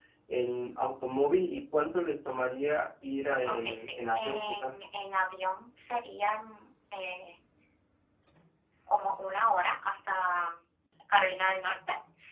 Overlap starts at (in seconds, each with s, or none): 3.5 s